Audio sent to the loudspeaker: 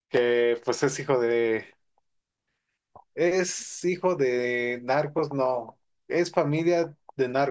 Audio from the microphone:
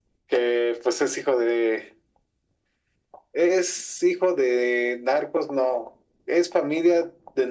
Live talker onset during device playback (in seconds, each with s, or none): none